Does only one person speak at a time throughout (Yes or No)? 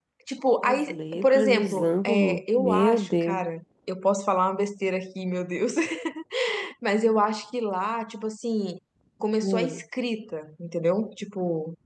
No